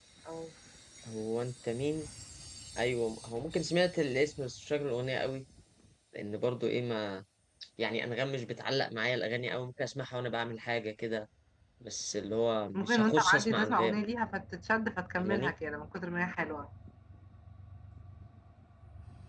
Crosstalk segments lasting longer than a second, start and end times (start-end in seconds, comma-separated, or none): 12.7-14.0